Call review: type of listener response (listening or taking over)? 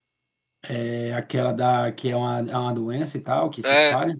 taking over